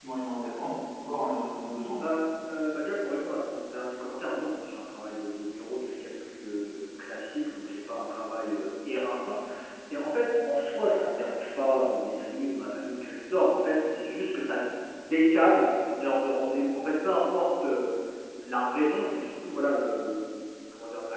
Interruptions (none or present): none